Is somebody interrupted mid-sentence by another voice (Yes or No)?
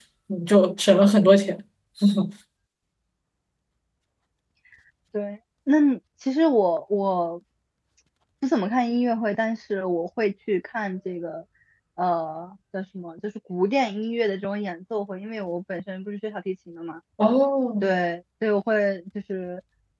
No